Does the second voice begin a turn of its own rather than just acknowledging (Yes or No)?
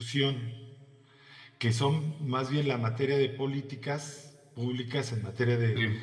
No